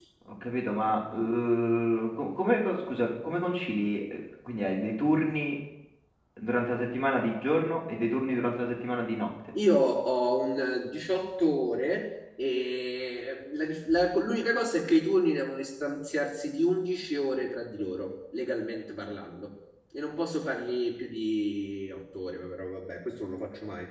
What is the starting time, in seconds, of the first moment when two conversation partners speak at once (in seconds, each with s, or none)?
none